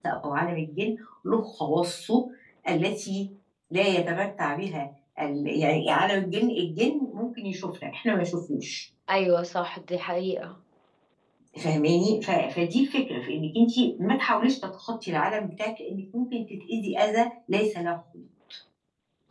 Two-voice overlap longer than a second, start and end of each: none

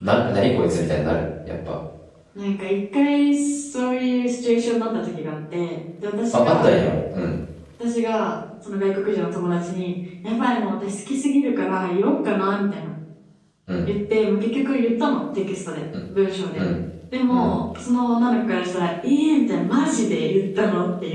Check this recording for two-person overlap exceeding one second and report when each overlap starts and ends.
none

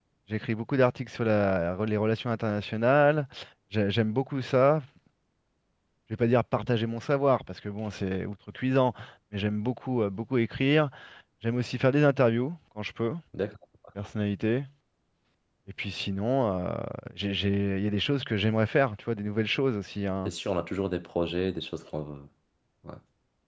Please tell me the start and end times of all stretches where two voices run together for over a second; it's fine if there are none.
none

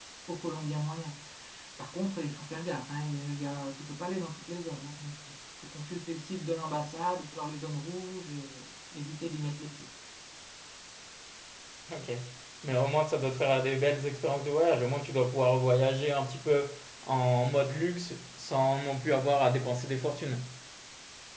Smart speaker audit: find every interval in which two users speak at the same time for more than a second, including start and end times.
none

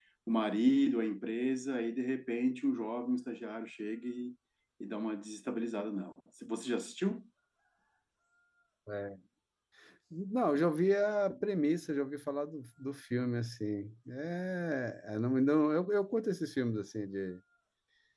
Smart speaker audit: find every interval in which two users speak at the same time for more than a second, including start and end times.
none

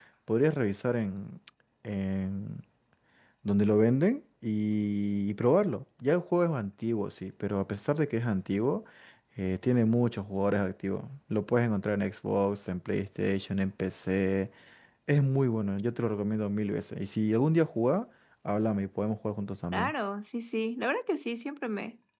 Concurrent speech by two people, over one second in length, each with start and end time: none

